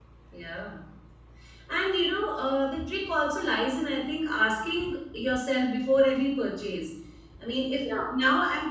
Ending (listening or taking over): listening